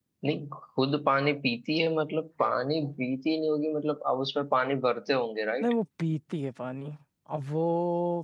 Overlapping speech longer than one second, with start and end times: none

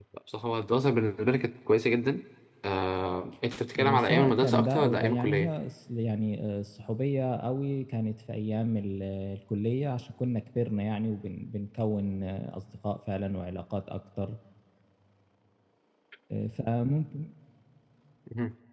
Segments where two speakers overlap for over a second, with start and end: 3.8-5.5

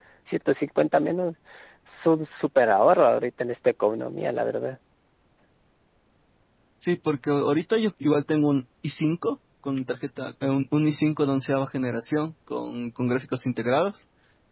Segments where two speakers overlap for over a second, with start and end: none

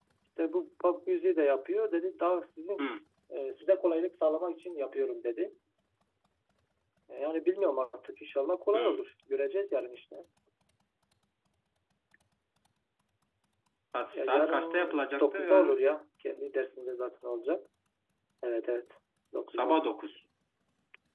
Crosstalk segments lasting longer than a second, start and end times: 14.1-15.8

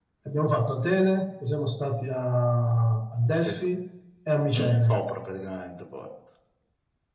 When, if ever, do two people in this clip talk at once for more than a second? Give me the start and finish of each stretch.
none

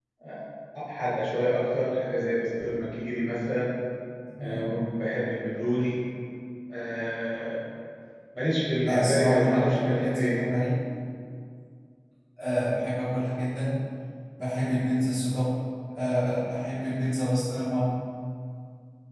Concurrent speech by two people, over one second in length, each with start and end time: 8.8-10.4

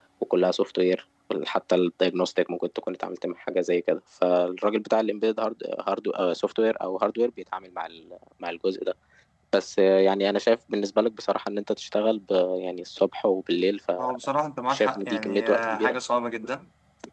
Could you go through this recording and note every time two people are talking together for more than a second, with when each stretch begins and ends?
14.7-16.0

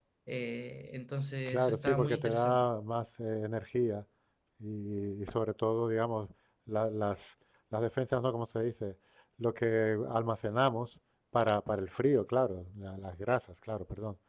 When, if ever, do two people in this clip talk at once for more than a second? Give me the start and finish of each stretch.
1.4-2.7

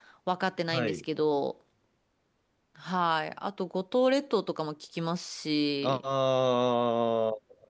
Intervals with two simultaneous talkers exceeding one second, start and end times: none

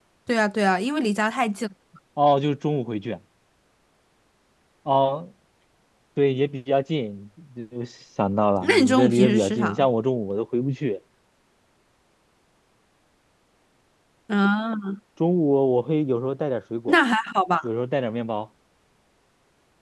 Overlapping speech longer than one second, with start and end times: 8.6-9.8

